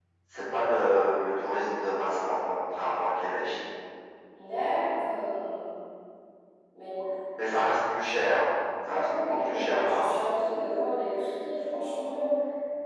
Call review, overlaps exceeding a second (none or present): present